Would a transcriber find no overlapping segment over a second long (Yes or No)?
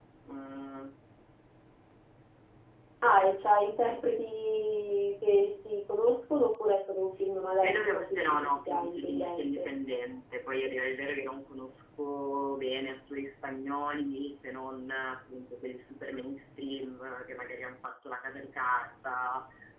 No